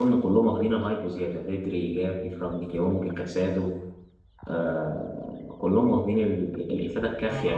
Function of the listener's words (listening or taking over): taking over